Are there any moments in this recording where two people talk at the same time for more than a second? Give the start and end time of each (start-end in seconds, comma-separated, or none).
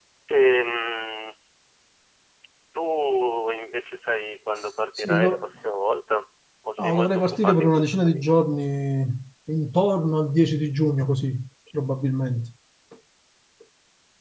6.8-8.2